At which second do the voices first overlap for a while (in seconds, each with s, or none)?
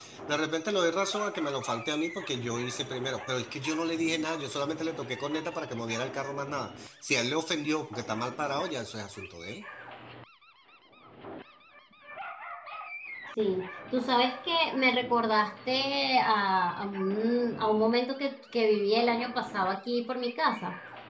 none